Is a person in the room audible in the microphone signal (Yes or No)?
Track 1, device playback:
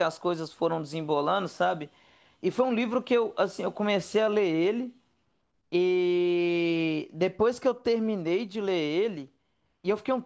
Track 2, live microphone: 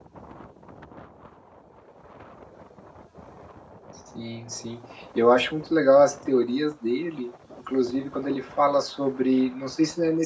Yes